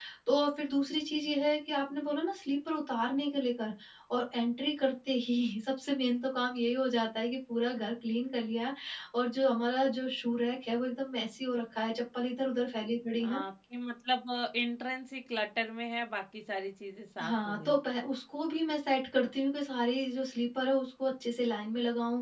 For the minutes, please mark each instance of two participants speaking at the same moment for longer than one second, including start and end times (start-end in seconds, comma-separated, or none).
none